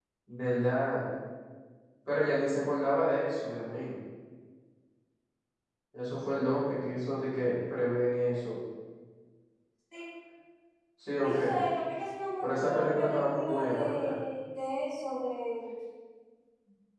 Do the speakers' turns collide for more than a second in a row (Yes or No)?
Yes